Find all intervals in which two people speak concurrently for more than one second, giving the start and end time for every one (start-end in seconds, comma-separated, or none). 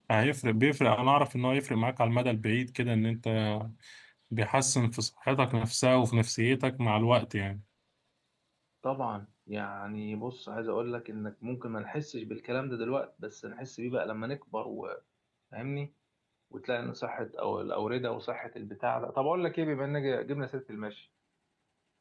none